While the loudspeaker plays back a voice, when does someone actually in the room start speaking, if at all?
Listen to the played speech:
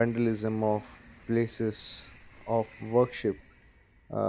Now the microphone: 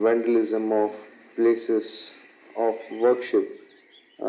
none

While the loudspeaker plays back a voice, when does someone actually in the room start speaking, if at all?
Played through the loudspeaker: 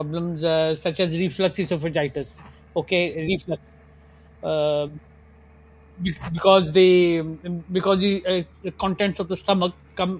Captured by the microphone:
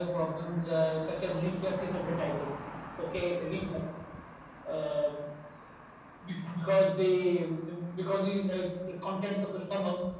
none

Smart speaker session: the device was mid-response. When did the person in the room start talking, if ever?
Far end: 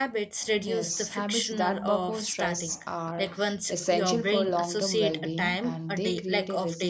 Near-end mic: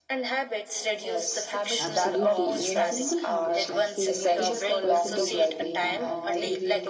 1.8 s

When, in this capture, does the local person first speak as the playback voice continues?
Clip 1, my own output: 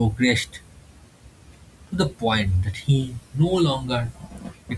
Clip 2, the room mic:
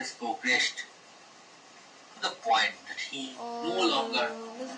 3.3 s

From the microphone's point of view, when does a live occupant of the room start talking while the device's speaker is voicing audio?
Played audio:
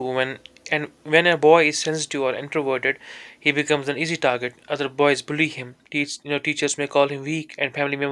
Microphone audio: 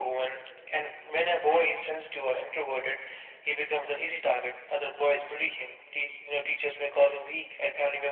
none

